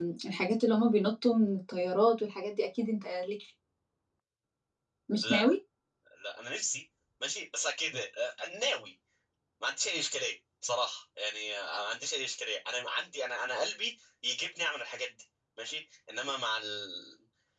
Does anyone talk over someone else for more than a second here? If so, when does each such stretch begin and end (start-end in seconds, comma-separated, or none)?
none